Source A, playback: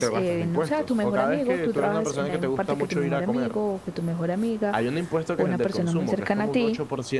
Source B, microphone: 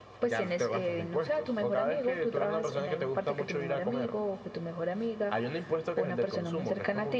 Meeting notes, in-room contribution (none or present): none